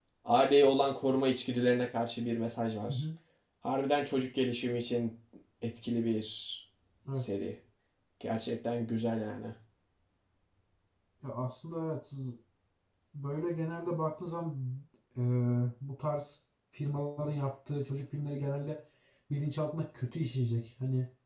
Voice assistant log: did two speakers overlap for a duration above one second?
No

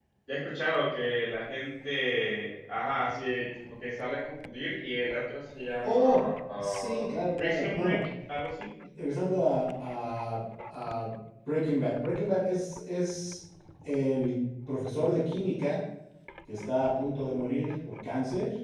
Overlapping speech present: Yes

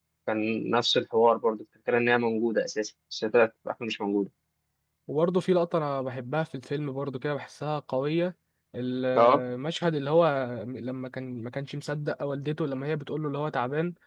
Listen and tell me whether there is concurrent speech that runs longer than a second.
No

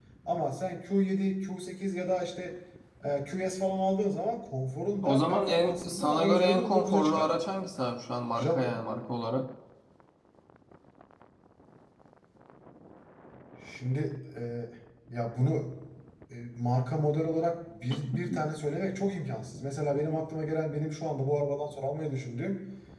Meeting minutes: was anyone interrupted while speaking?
Yes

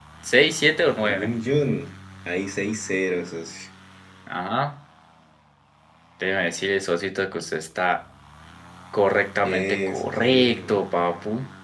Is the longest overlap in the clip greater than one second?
Yes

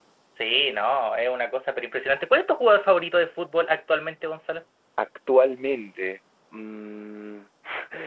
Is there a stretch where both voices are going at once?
No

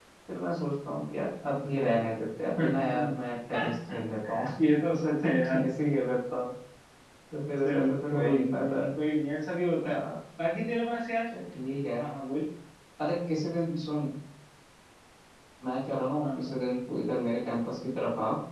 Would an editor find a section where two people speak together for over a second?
Yes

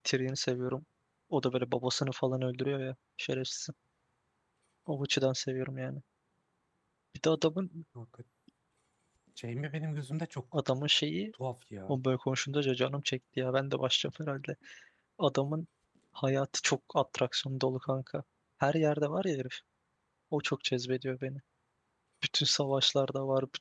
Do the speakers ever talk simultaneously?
No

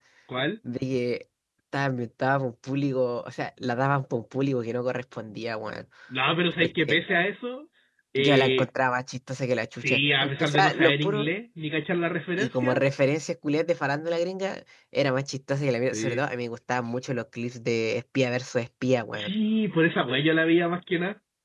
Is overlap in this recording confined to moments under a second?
No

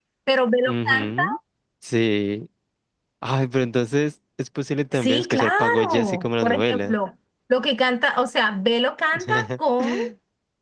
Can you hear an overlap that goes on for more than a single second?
Yes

